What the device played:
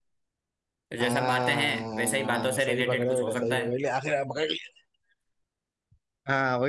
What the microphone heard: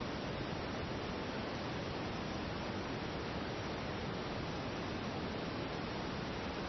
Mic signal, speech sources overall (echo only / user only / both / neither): neither